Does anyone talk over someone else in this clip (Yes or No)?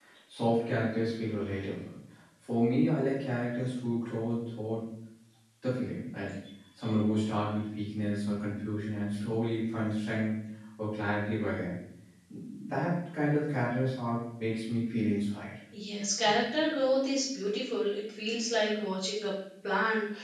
No